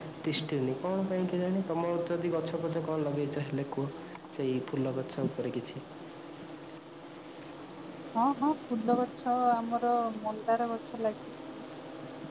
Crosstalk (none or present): none